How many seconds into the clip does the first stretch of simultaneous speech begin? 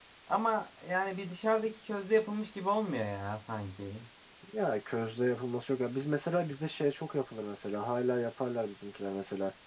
none

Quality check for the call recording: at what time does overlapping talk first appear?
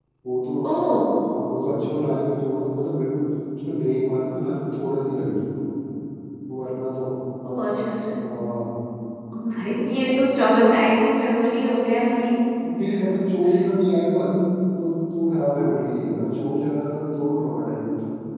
none

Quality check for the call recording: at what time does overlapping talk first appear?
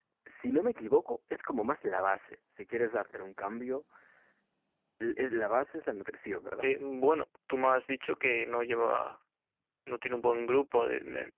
none

